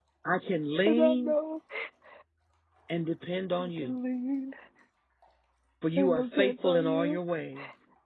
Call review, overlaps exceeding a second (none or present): present